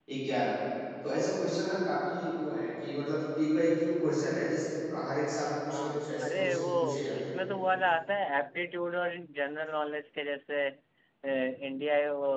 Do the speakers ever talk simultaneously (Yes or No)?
Yes